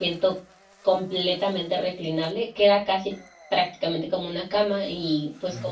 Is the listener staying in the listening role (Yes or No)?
Yes